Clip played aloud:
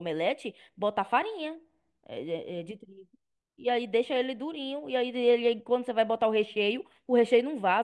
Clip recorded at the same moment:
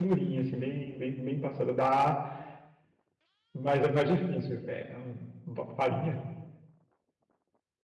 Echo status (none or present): none